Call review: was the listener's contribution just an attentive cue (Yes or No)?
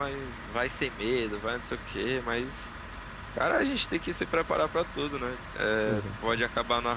Yes